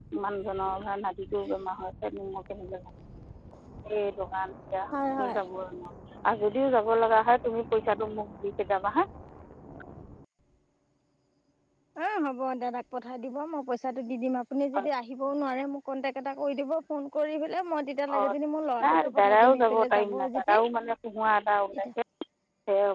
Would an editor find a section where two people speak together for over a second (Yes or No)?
Yes